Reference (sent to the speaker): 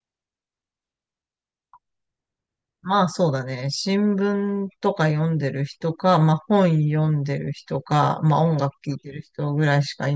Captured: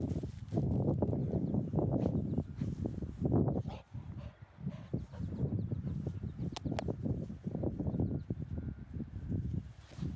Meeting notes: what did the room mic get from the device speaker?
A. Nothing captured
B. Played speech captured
A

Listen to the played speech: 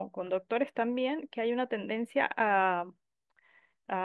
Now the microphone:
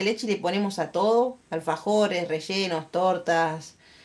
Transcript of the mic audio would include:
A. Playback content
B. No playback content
B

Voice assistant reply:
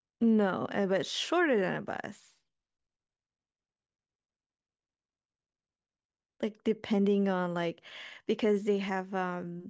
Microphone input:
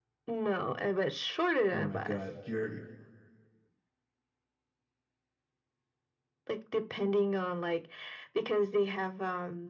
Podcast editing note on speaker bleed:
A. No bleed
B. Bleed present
B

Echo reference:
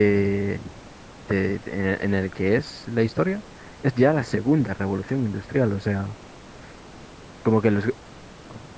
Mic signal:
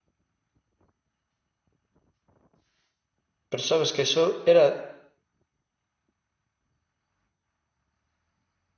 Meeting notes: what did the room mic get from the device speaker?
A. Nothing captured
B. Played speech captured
A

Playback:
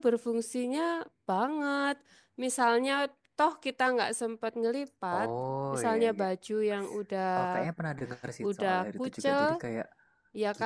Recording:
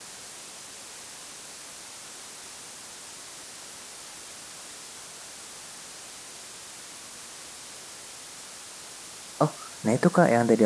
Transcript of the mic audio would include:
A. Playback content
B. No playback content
B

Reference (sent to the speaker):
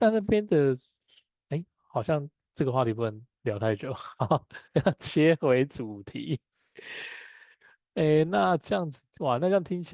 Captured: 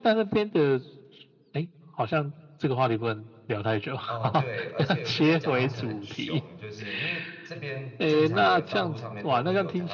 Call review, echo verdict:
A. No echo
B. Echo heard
B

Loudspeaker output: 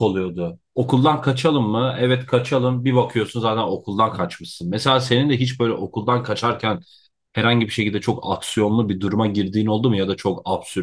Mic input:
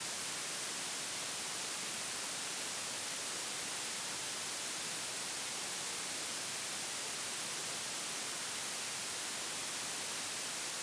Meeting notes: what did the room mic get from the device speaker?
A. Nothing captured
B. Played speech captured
A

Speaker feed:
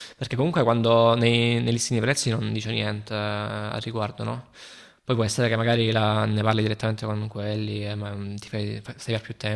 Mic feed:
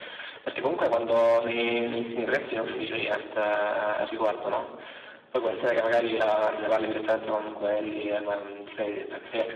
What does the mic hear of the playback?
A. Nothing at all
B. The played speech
B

